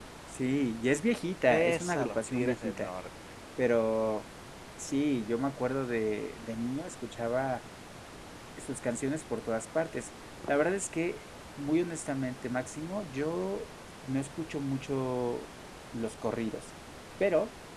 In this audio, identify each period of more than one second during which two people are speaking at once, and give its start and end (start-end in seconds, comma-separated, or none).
1.5-2.9